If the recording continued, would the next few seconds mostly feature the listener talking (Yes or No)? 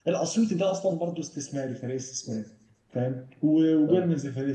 No